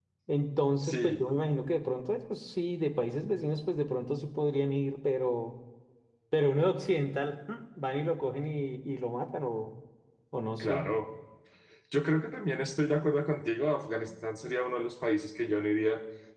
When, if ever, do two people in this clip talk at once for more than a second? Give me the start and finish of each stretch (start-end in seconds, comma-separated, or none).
none